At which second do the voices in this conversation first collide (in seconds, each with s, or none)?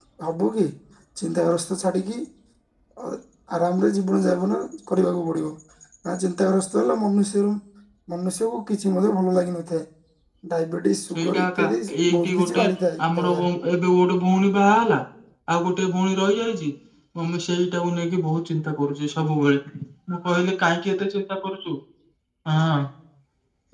11.2 s